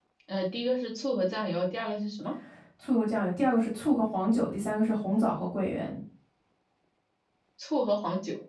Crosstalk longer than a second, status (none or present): none